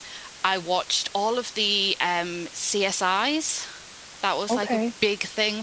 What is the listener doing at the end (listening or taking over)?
listening